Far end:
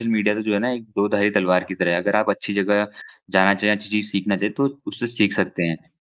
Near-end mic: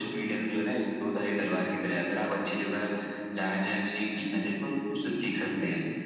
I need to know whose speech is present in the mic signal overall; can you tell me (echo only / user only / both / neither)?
echo only